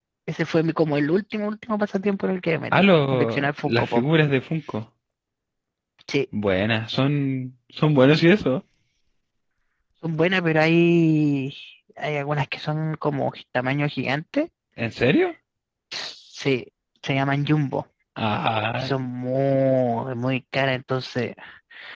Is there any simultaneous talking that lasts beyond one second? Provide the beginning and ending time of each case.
2.7-4.0

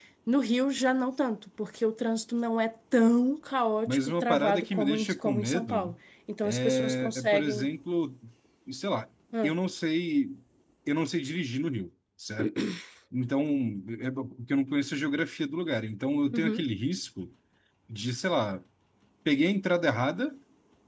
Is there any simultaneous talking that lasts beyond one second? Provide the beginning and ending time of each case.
3.9-6.0, 6.4-7.7

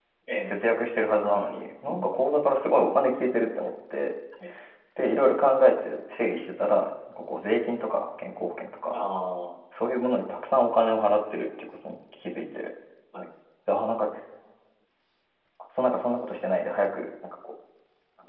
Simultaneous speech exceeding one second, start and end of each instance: none

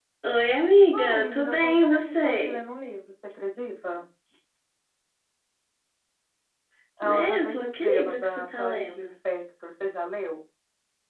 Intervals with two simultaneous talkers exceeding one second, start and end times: 0.9-2.6, 7.0-9.1

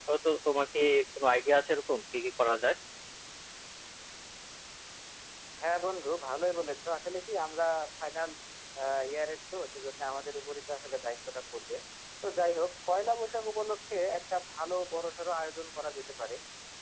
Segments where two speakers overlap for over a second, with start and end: none

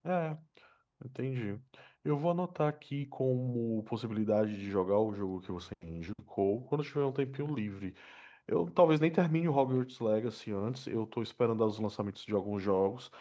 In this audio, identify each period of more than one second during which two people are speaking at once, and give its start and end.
none

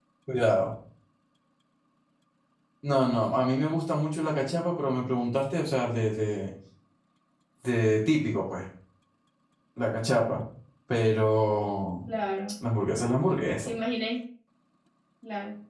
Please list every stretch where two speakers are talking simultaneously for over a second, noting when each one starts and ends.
none

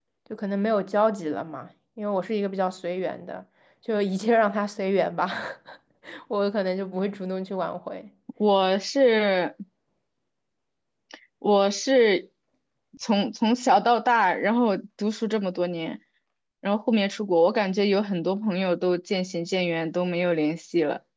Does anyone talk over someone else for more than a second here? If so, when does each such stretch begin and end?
none

